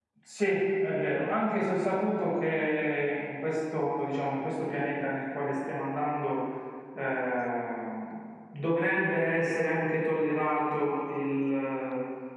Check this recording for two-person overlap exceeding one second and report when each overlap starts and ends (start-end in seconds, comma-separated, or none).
none